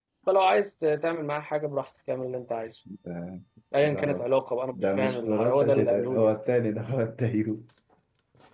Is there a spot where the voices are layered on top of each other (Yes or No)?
Yes